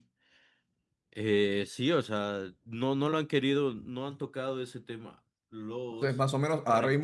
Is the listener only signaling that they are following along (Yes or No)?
No